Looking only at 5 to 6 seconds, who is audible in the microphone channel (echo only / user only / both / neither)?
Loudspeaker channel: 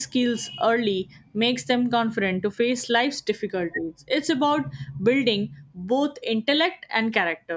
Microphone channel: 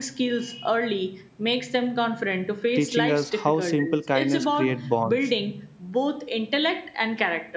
both